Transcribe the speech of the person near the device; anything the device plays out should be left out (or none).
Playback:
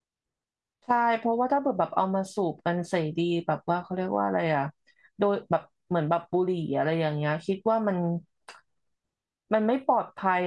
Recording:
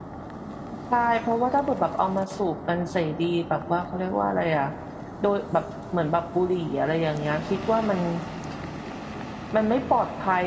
none